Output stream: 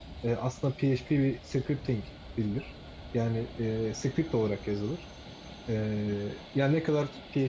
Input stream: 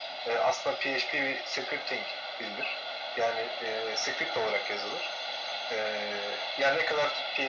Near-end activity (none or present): none